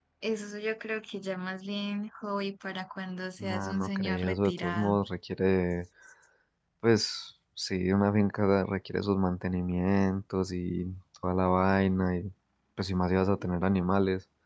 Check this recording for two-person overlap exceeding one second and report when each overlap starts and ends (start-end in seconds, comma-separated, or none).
3.4-5.0